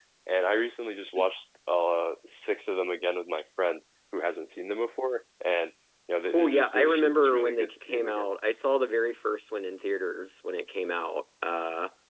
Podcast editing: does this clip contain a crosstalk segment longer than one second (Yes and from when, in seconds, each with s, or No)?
Yes, from 6.3 s